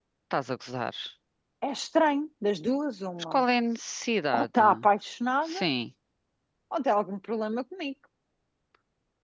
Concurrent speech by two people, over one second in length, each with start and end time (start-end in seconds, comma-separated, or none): none